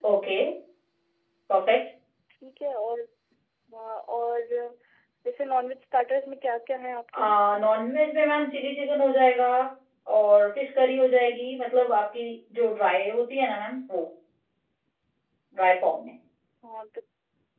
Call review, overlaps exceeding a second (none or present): none